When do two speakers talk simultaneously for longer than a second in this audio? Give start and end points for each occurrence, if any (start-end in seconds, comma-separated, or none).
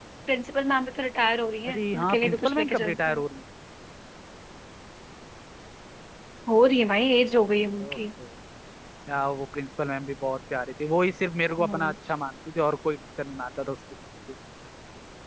1.7-3.2